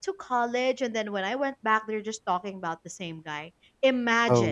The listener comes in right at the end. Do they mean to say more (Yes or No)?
No